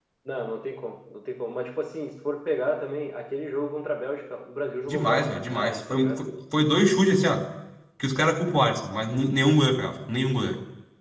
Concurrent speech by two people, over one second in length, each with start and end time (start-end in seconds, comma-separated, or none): 4.9-6.2